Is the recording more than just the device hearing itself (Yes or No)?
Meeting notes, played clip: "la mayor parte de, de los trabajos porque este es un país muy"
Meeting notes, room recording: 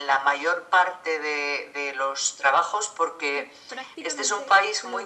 Yes